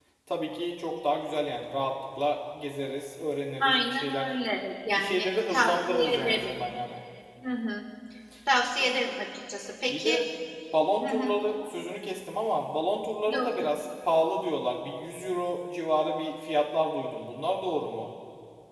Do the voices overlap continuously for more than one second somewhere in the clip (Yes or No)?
Yes